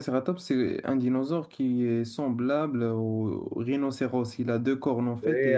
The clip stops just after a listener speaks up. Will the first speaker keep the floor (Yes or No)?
No